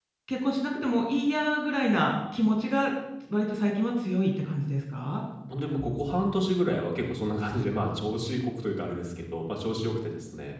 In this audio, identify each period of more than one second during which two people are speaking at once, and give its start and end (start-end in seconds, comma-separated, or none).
none